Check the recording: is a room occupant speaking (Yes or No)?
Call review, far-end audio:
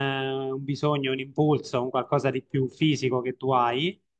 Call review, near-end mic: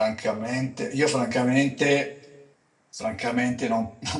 Yes